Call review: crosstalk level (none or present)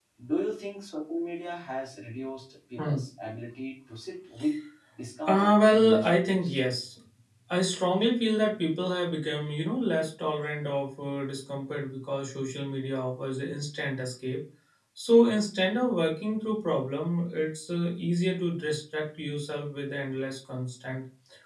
present